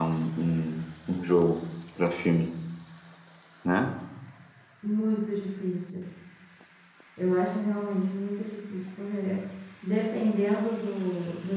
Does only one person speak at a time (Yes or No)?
Yes